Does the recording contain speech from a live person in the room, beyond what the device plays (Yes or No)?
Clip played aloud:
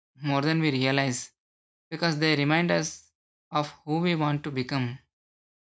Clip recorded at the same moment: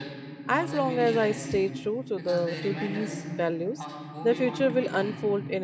Yes